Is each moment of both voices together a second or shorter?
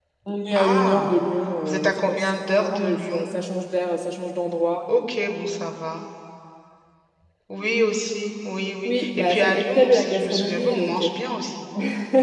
No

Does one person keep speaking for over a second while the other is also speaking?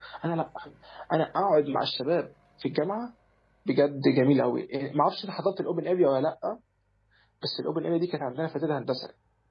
No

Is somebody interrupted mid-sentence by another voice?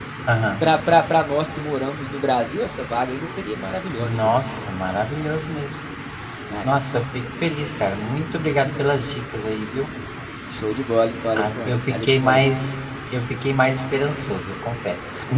Yes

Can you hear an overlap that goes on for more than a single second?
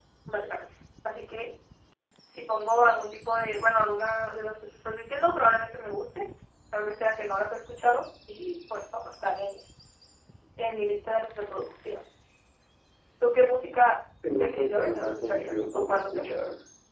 Yes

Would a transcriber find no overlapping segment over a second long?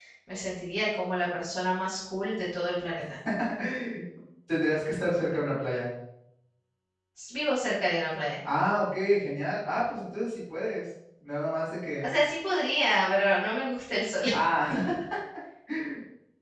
Yes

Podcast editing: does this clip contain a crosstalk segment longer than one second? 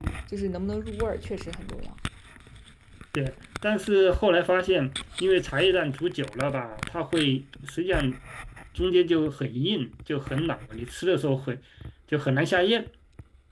No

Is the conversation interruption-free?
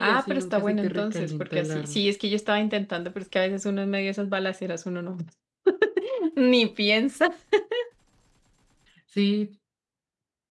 No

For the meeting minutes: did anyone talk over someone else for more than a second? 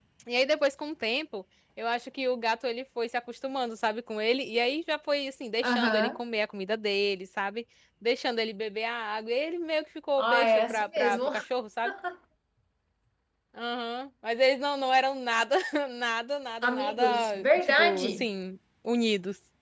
Yes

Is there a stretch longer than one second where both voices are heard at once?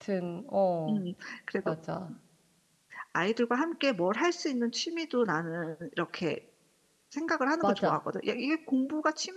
No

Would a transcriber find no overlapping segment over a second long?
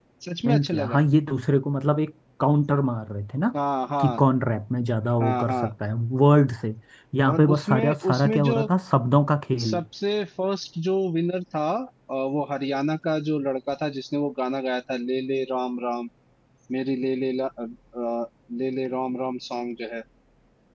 No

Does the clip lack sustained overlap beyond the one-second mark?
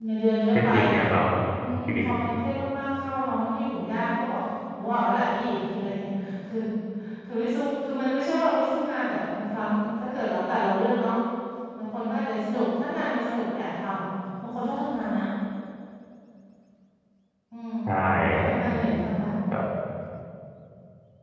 Yes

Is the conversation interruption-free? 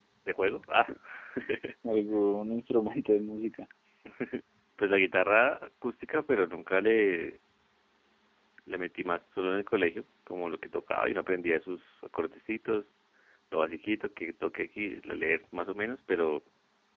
Yes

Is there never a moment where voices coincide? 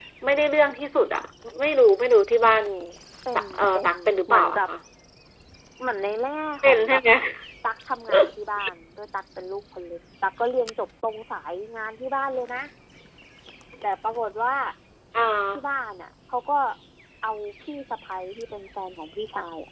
No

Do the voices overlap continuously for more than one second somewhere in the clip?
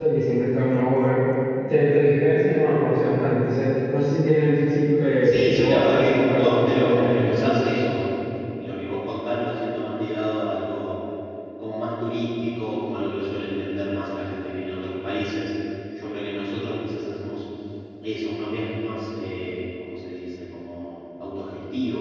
Yes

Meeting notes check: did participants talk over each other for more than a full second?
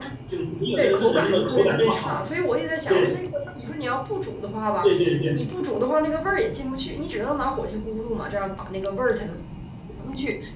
Yes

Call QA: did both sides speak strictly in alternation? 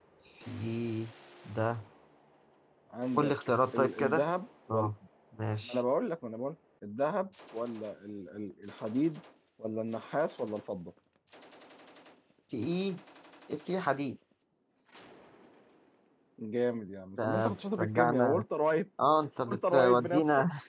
No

